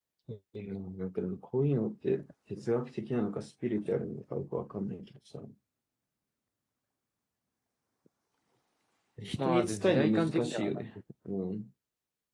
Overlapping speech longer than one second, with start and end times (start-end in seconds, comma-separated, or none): 9.4-10.8